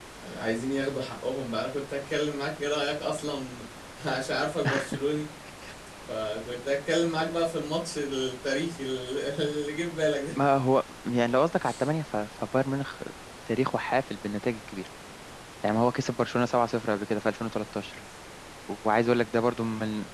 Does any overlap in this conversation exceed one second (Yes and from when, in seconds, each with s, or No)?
No